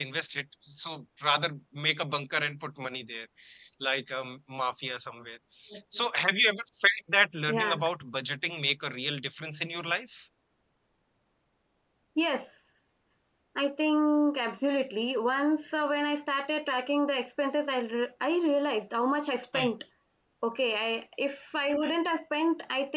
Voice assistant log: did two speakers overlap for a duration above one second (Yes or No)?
No